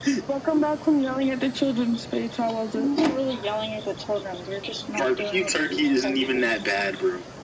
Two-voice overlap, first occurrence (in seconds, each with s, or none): 4.9 s